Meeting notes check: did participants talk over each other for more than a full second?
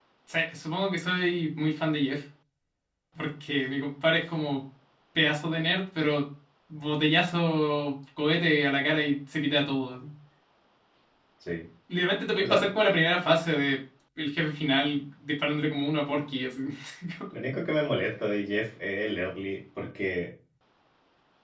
No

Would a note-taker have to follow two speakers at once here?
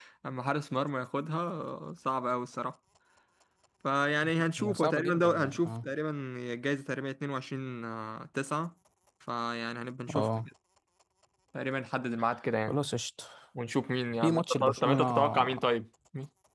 Yes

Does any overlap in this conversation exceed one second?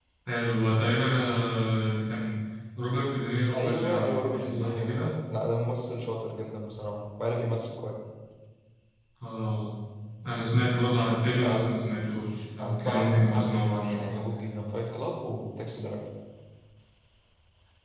Yes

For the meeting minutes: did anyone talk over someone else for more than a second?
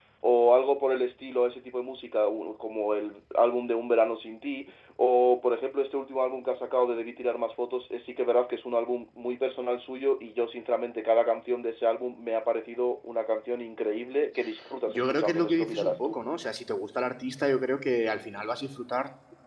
Yes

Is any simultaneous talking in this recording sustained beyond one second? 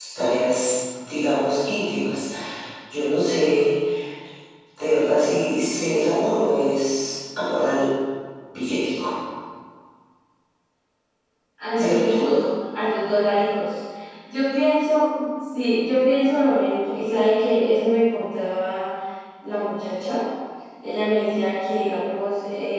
No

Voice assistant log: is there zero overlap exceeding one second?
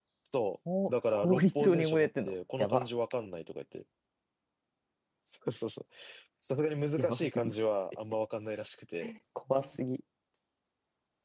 No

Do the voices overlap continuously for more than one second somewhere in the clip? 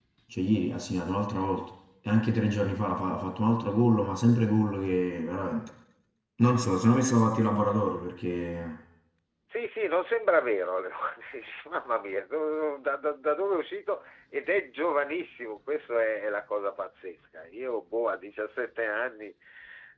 No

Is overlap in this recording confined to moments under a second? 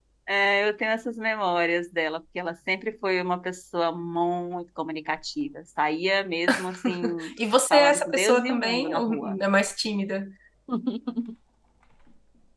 No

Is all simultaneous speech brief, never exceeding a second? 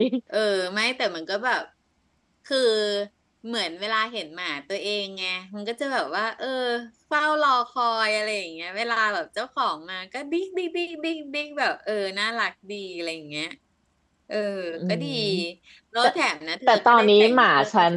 No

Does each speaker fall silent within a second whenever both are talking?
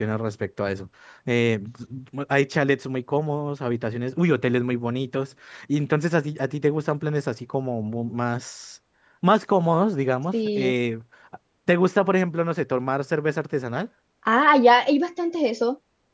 Yes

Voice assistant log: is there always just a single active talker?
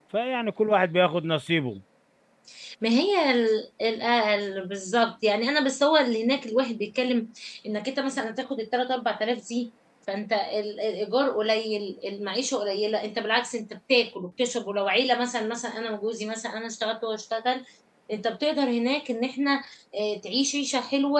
Yes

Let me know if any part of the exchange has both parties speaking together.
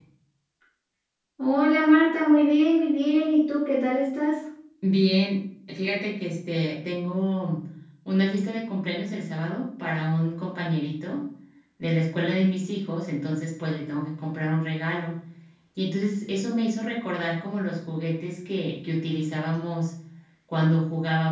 No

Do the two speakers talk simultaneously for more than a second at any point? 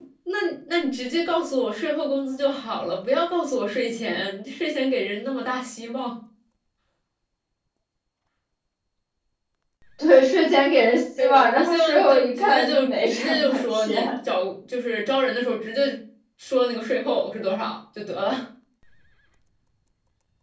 Yes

